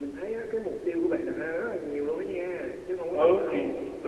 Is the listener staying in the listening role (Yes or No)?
No